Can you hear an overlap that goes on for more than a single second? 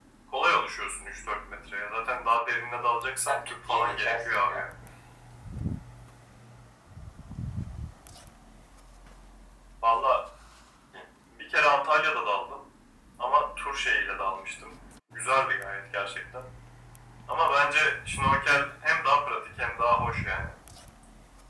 Yes, from 3.3 s

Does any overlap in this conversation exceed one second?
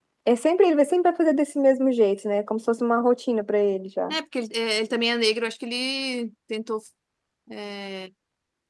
No

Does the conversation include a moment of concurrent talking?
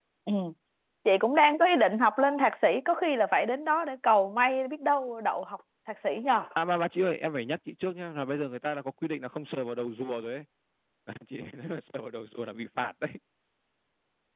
No

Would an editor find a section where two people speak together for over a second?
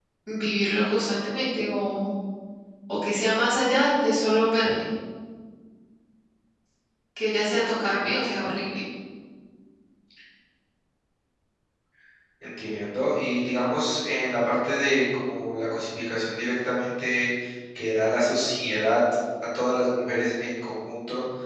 No

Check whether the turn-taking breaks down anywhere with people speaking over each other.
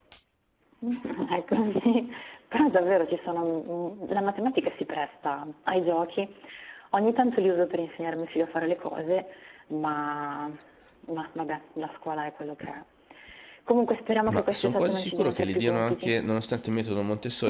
Yes, from 14.3 s

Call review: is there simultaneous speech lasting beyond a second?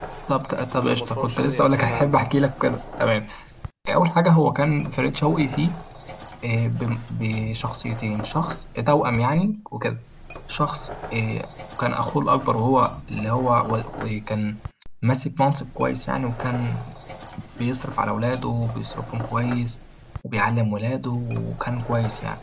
Yes, from 0.7 s

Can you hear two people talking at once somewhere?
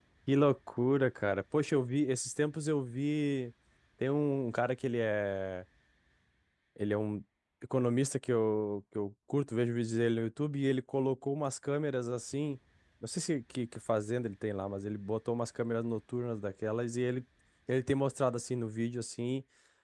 No

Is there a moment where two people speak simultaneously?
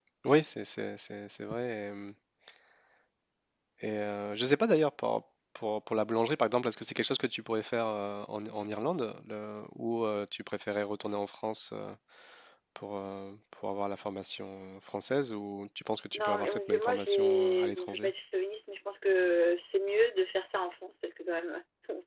Yes, from 16.1 s

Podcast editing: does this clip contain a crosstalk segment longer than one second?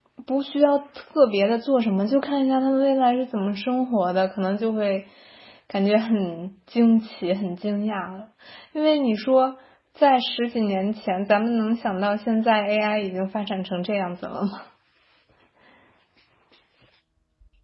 No

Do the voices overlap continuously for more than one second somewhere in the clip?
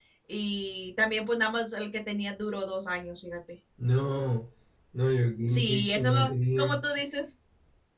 Yes, from 5.5 s

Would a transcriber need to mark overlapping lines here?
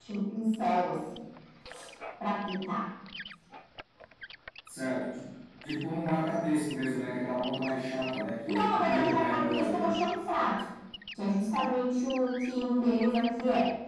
Yes, from 8.5 s

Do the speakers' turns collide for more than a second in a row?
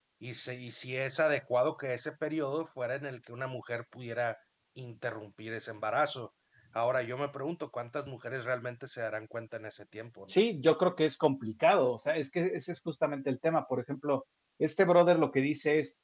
No

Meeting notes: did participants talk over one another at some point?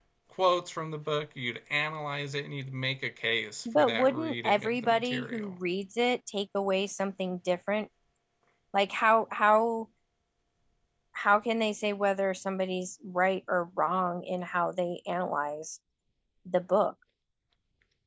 Yes, from 3.6 s

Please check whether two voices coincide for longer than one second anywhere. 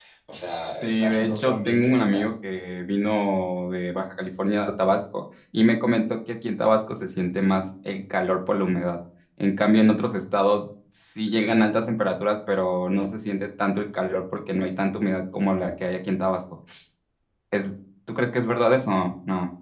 Yes, from 0.8 s

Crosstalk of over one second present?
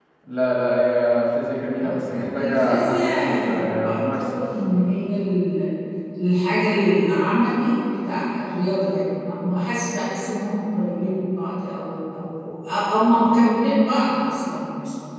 Yes, from 1.8 s

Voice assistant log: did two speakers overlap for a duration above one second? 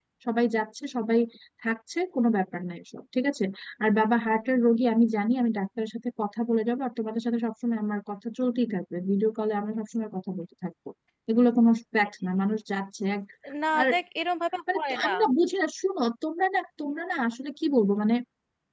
No

